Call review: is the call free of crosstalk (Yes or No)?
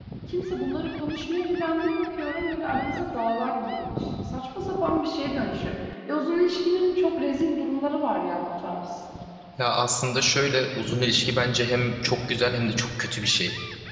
Yes